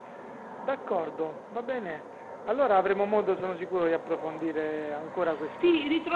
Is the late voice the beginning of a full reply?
Yes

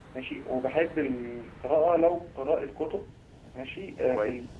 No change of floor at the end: Yes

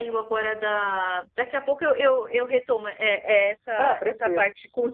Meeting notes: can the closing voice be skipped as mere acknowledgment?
Yes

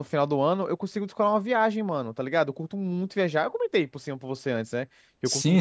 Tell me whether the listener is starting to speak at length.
Yes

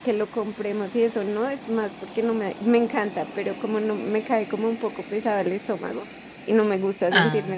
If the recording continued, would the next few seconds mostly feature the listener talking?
No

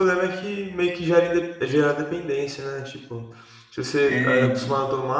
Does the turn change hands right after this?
No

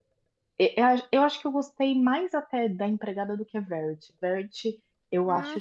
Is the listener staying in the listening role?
Yes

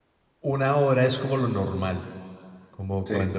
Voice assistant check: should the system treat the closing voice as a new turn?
No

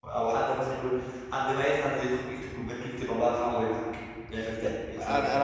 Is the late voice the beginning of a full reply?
Yes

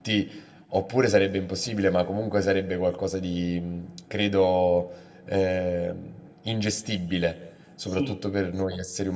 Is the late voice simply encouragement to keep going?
Yes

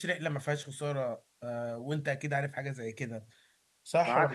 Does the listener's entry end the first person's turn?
Yes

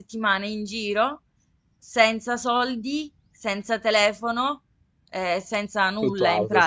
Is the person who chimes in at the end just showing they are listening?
Yes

